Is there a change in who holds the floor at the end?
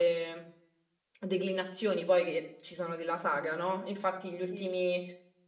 No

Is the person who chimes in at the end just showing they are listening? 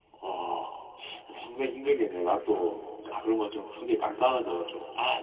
No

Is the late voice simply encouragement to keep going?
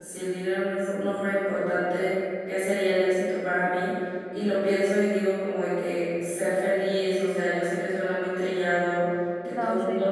Yes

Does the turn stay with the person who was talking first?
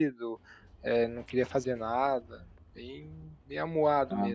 No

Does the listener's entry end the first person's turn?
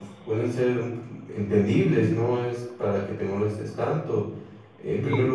No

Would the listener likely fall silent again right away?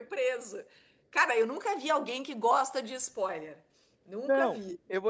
No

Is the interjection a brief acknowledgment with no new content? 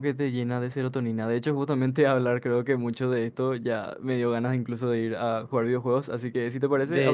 No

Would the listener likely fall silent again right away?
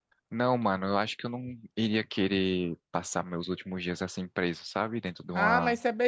No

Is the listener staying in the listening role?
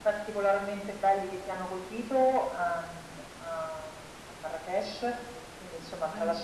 Yes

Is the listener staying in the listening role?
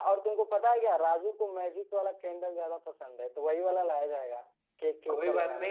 No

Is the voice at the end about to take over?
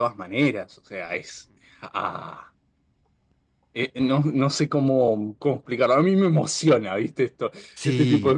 Yes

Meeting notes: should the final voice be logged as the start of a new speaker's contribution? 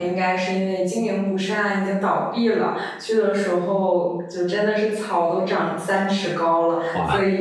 No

